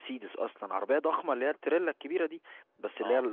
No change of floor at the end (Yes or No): Yes